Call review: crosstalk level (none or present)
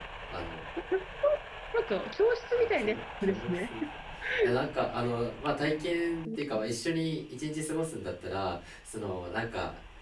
present